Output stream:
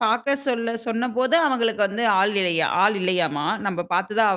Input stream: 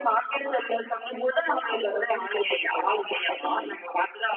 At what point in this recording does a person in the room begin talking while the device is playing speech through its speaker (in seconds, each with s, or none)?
none